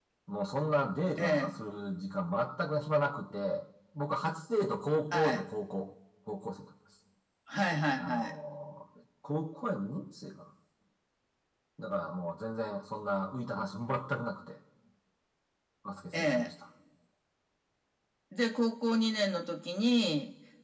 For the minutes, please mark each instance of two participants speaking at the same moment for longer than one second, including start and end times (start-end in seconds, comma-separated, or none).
none